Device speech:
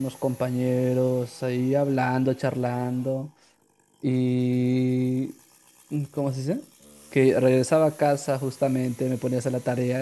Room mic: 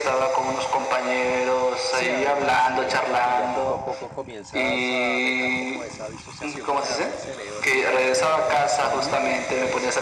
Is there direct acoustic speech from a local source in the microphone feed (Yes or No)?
Yes